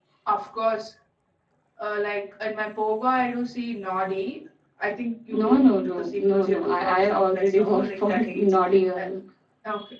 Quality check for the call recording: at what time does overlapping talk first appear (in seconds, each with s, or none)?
5.3 s